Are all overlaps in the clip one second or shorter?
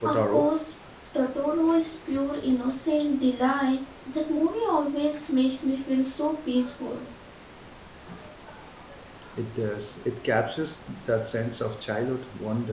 Yes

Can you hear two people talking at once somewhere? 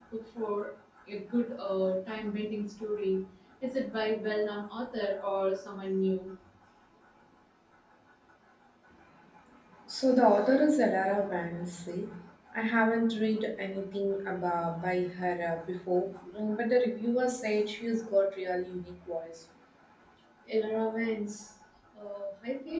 No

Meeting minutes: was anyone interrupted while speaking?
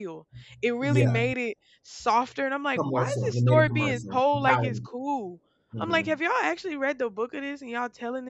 Yes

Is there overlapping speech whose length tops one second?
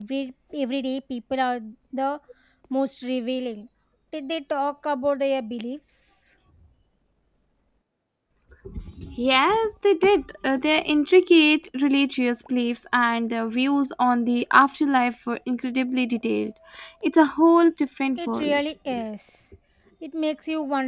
No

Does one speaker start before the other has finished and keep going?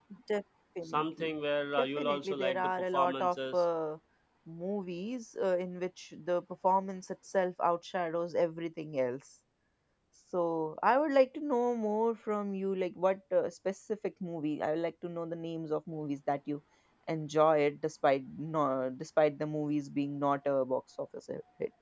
Yes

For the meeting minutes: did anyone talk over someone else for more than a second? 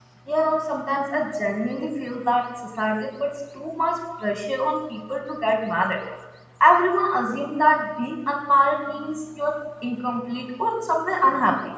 No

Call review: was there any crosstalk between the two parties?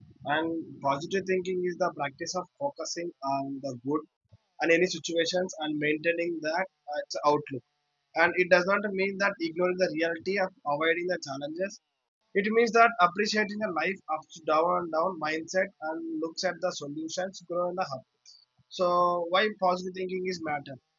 No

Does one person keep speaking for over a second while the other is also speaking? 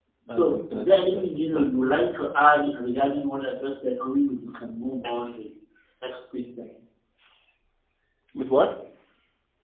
Yes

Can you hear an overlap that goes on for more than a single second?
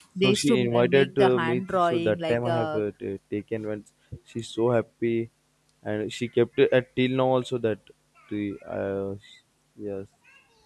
Yes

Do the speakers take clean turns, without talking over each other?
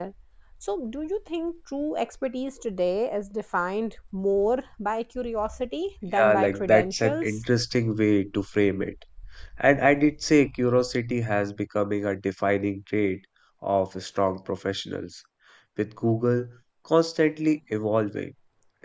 No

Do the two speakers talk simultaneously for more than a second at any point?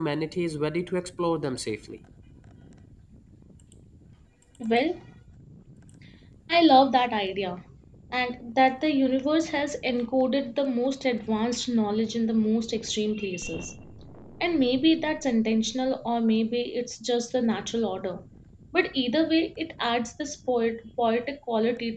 No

